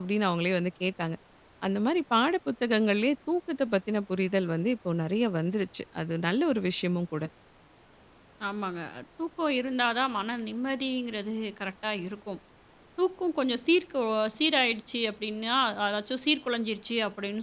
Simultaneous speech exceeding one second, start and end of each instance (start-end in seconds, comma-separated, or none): none